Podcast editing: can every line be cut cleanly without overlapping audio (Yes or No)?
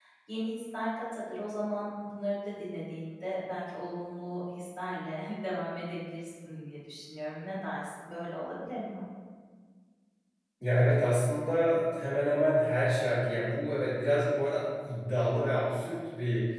Yes